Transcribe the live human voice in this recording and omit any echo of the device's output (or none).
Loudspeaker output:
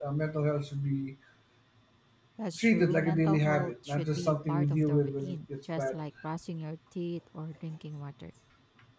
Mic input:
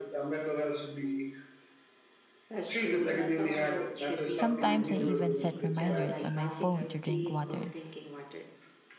Sometimes I even set reminders on my phone to drink water.